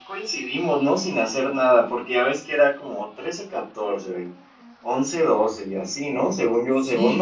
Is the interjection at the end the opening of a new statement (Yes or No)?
Yes